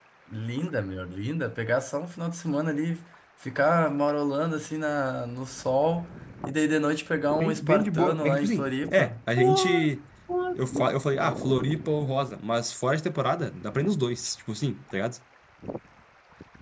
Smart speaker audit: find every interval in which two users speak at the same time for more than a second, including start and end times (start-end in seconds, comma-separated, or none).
7.4-9.1